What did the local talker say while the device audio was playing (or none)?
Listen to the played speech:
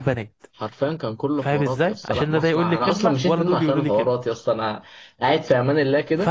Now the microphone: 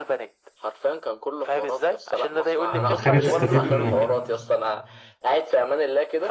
أمم، حاجة تستفيد منها